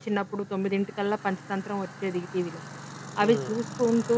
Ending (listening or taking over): listening